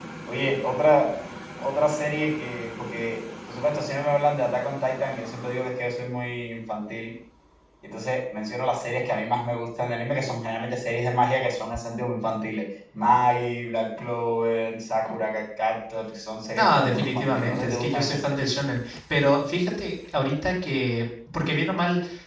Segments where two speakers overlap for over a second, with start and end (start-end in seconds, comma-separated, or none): 16.6-18.4